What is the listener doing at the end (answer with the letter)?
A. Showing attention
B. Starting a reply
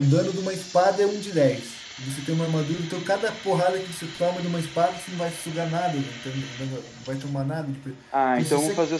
B